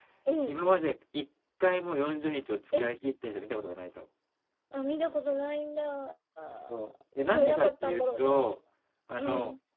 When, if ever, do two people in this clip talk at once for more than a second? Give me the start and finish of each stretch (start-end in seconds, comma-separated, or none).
6.7-8.4